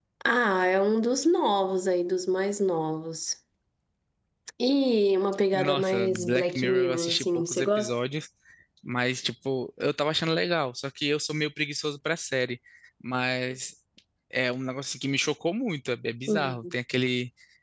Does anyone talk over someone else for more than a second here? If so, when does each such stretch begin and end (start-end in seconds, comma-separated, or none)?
5.5-7.9